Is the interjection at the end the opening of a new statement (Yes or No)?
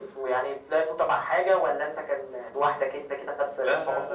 Yes